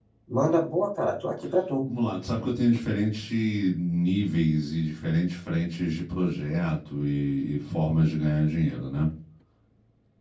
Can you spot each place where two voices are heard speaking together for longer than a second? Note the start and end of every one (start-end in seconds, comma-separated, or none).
none